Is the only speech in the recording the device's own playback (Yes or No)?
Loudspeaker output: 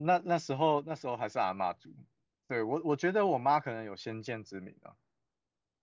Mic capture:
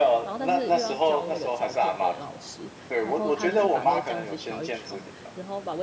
No